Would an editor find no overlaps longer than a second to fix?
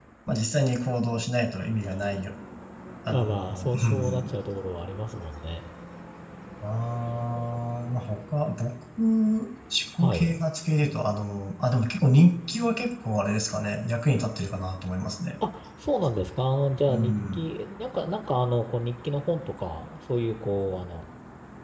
No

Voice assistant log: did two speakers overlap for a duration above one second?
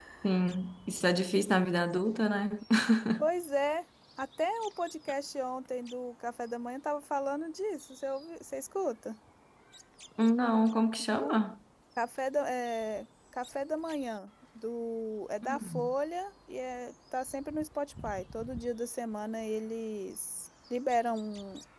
No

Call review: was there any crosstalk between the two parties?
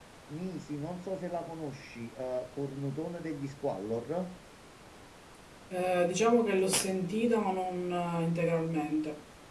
No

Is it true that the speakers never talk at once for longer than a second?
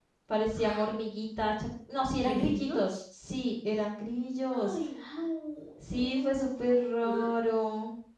No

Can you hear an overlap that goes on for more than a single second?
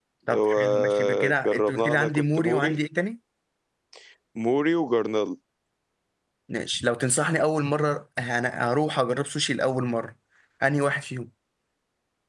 Yes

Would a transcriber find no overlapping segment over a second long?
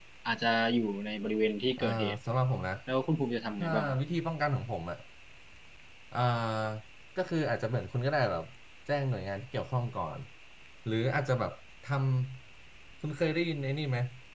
Yes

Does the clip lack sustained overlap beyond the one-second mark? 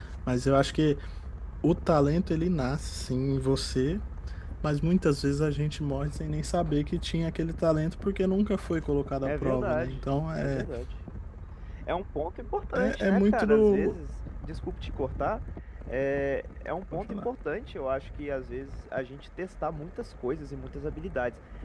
No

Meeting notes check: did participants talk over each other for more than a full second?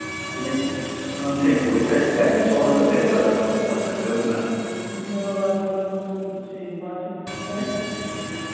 Yes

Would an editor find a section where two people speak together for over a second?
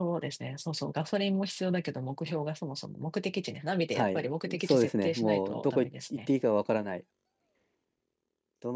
Yes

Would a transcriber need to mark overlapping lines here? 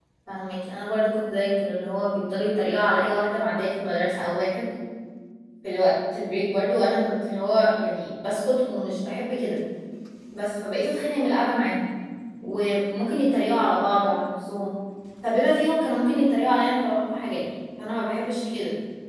No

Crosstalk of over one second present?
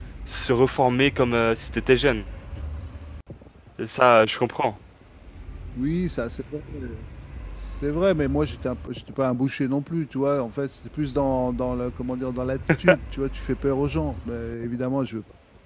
No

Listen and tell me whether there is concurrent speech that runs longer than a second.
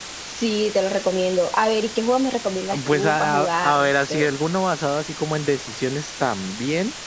Yes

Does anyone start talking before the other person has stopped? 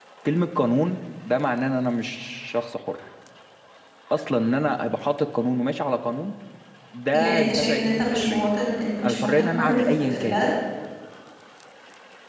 Yes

